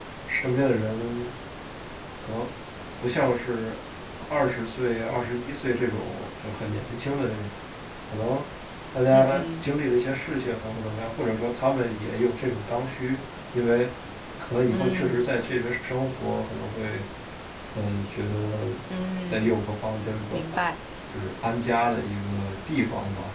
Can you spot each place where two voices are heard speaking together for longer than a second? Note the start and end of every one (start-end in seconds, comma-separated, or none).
none